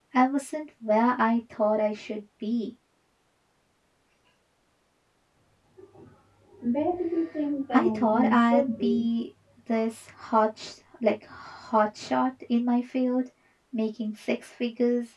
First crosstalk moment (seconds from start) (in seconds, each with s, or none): 7.7 s